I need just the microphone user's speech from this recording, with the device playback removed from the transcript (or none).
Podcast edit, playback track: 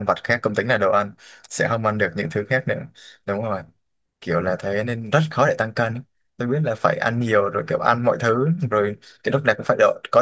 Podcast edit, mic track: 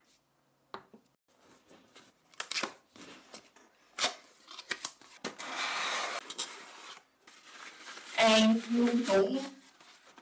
An cũng